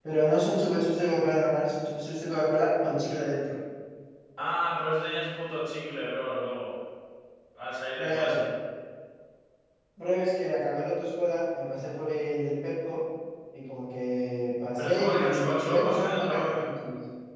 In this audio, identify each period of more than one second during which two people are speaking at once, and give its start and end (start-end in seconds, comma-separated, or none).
14.8-16.6